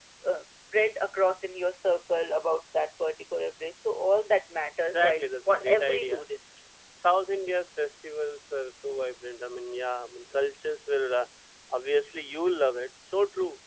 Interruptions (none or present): present